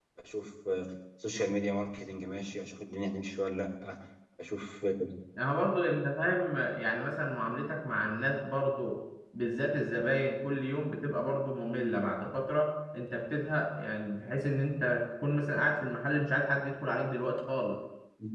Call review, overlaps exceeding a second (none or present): none